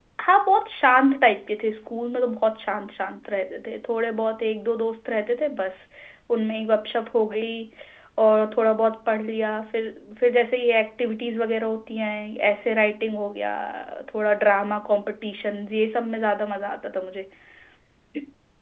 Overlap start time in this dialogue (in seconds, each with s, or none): none